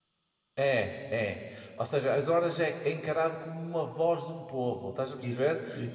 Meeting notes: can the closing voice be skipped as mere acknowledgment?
Yes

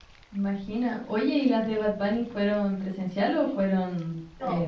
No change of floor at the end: No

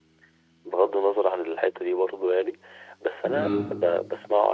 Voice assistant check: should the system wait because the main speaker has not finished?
Yes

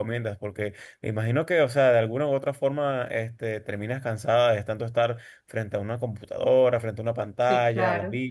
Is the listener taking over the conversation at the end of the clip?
Yes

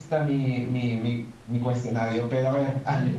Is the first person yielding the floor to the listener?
Yes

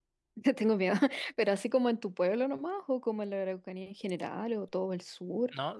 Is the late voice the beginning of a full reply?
Yes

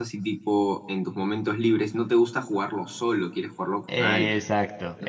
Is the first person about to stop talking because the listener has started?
Yes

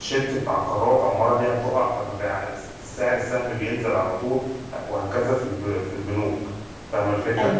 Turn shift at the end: Yes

